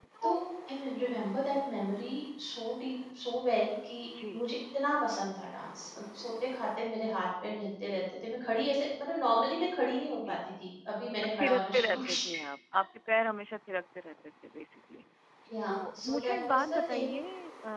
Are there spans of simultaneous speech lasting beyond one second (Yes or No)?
Yes